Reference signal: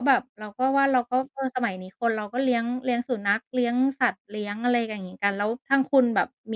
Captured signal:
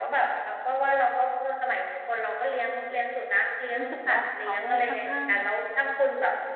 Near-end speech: present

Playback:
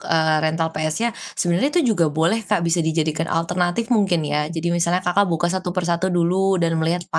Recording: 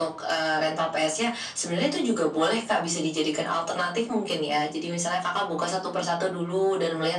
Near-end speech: none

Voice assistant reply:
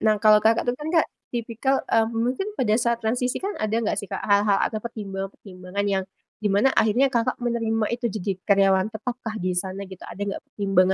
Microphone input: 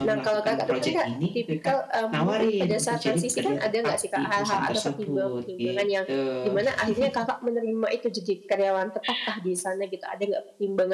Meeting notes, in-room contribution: present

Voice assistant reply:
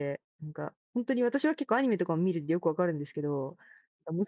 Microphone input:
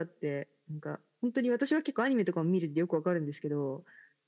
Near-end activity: none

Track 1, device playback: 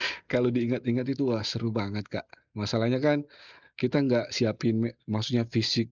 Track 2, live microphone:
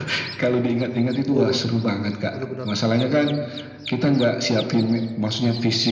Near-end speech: present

